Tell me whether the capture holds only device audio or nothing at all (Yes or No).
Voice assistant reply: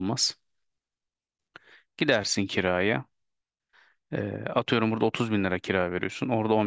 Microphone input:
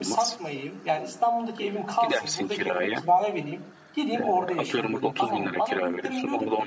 No